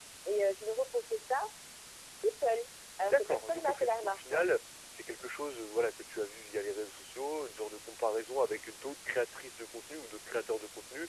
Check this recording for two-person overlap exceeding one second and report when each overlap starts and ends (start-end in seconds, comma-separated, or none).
3.0-4.4